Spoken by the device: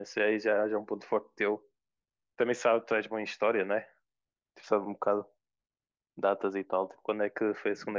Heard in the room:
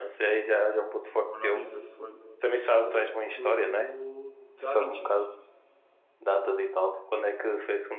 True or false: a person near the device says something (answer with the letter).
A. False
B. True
B